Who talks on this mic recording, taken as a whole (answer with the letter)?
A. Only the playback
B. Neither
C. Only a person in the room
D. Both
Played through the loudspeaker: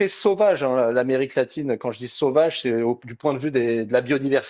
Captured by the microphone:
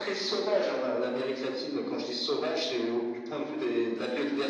A